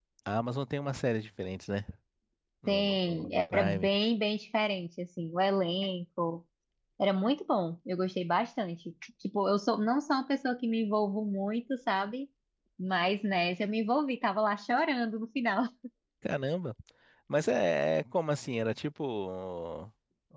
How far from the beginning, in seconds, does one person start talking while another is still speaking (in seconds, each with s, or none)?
2.7 s